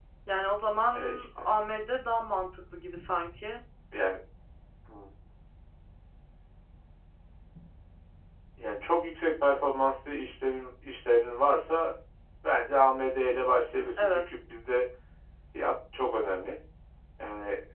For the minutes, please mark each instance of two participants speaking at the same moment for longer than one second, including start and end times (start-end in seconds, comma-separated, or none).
none